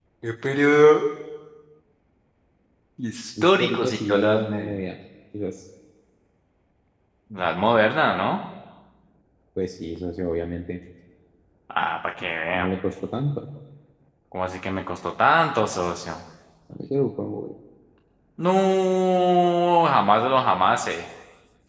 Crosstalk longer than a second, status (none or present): present